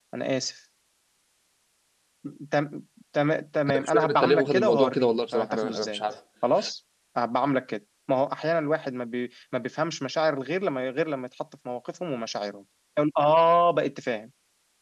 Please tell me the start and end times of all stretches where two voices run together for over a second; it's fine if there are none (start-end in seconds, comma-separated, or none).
3.7-6.0